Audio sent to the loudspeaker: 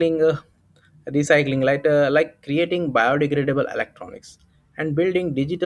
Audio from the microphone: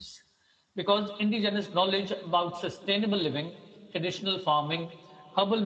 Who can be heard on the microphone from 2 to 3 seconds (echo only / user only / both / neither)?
user only